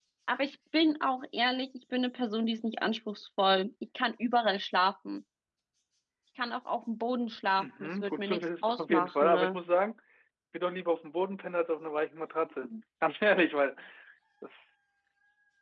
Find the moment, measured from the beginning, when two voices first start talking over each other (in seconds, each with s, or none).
7.6 s